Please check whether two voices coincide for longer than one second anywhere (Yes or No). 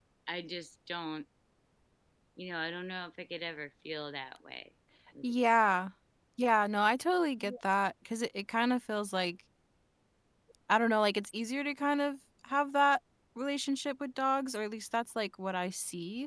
No